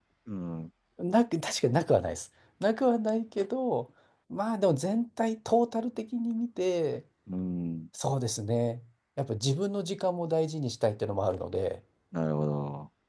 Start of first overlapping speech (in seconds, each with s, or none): none